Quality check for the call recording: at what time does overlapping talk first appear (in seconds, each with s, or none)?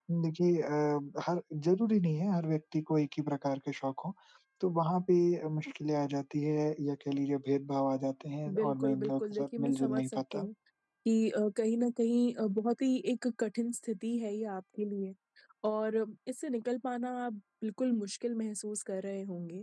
8.5 s